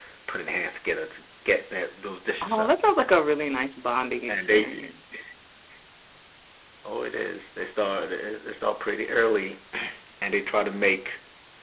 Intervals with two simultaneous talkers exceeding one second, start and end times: none

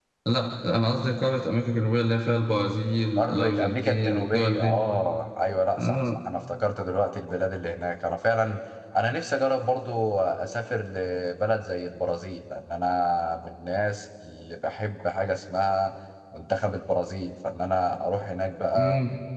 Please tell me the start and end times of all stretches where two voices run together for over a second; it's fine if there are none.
3.2-4.8

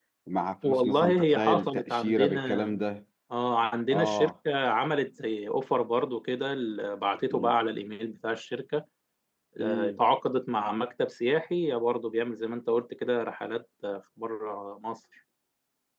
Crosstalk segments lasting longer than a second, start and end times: 0.6-2.8

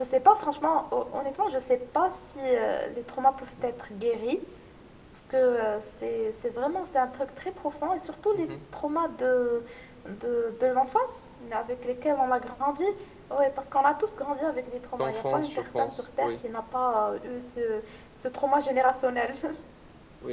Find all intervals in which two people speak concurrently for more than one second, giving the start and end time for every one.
15.0-16.3

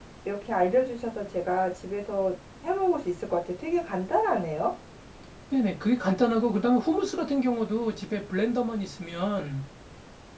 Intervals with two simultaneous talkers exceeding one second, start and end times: none

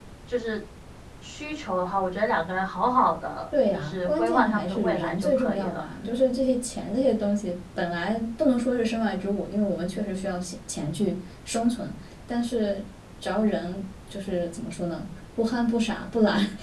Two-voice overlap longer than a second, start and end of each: 3.7-5.8

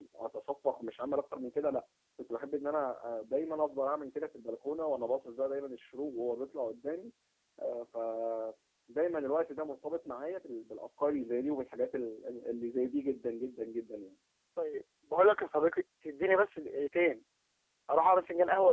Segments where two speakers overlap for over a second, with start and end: none

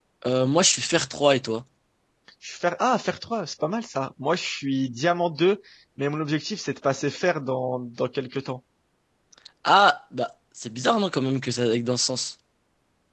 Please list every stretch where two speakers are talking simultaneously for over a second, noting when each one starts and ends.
none

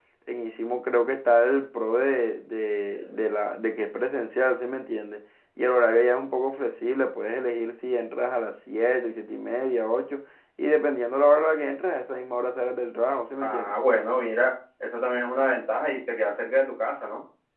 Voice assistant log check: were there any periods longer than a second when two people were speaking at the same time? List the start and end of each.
none

